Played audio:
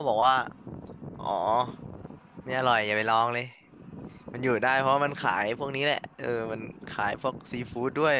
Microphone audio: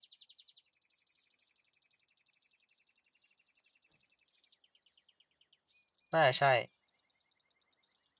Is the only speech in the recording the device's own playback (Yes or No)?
No